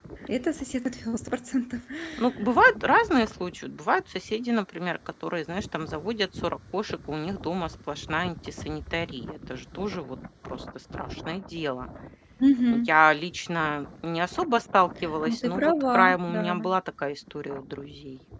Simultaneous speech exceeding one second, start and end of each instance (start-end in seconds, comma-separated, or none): 15.2-16.5